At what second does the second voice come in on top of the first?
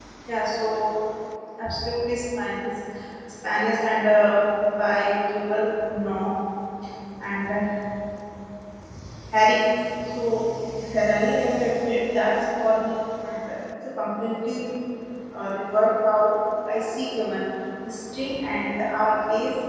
none

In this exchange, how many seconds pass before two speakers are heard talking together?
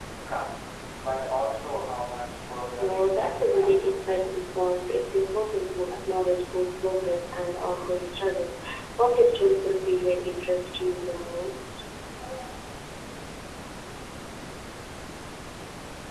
3 s

